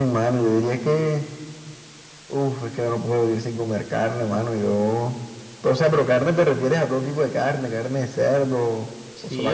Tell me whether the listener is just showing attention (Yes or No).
No